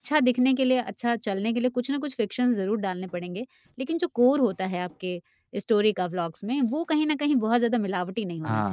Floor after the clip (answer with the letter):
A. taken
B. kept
A